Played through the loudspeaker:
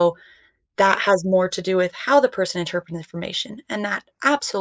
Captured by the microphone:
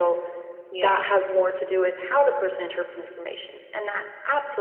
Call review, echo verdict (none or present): present